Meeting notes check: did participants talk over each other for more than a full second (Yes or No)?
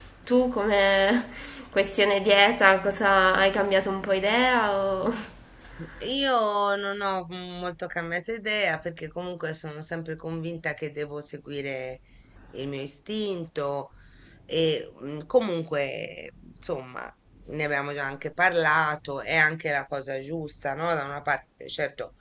No